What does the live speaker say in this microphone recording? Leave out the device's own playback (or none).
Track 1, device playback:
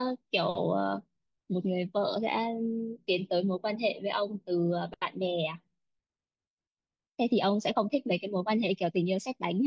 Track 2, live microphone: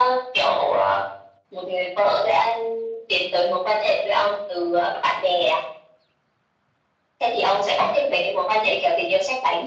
none